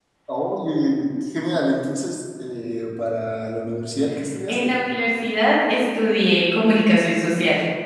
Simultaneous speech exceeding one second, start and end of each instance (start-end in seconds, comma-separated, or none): none